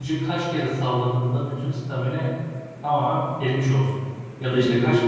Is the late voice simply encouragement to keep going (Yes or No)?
Yes